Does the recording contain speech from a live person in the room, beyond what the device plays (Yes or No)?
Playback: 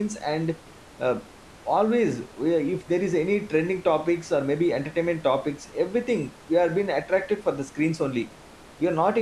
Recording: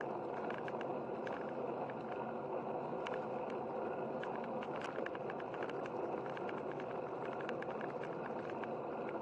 No